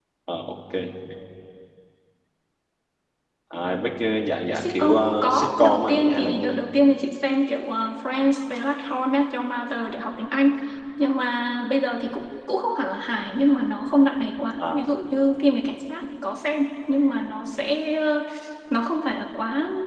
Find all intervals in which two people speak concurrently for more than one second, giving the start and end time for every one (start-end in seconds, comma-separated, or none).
4.5-6.5